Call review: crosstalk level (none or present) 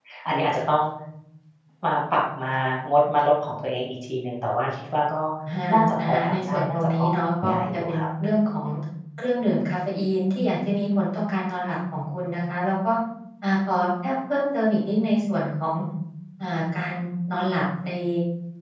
present